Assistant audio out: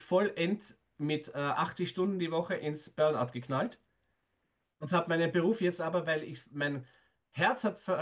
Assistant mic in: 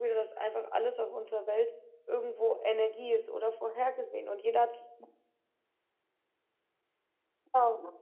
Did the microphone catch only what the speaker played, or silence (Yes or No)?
No